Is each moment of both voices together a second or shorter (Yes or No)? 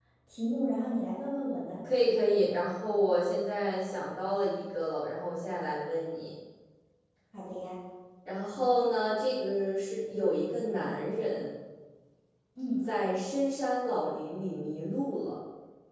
Yes